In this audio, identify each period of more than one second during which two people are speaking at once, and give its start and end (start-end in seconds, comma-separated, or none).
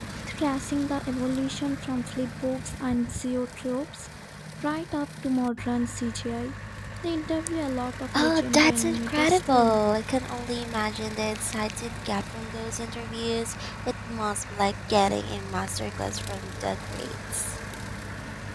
8.1-9.8